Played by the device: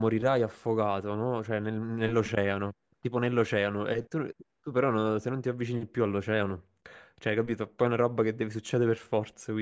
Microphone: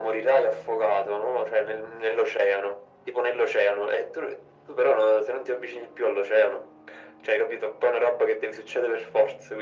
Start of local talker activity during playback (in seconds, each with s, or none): none